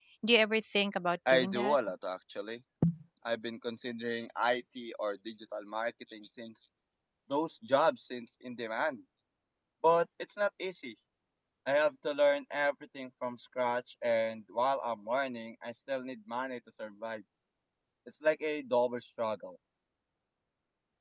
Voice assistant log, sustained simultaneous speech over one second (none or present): none